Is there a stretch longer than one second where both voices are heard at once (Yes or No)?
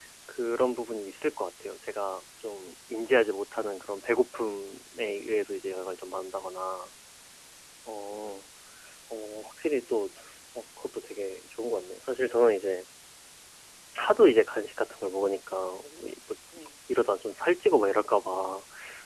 No